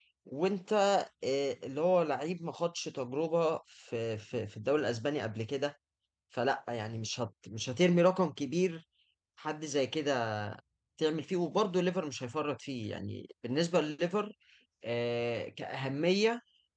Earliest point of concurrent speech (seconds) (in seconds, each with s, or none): none